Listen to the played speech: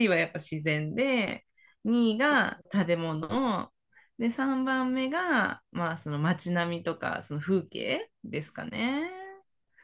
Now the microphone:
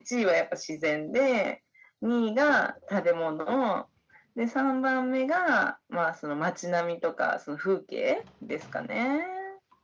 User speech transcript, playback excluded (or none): none